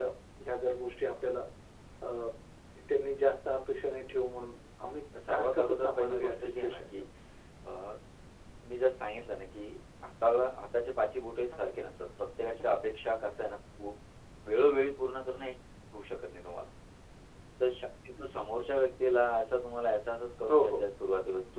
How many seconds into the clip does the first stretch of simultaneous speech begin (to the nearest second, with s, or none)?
5 s